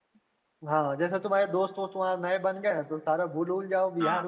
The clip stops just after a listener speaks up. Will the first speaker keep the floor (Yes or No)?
Yes